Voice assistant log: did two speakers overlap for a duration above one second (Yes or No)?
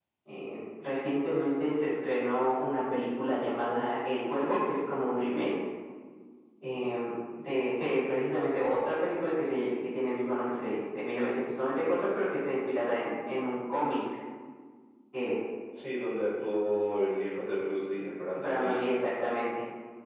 No